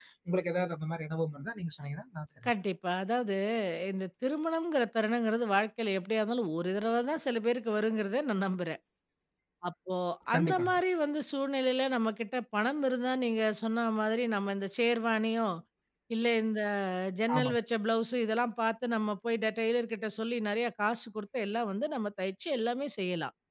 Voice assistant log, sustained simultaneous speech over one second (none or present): none